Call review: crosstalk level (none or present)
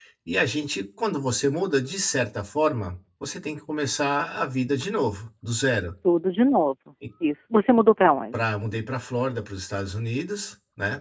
none